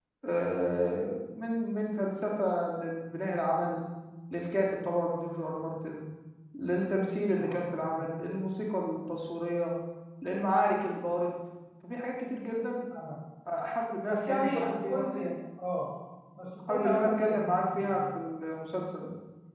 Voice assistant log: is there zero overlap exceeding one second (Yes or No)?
No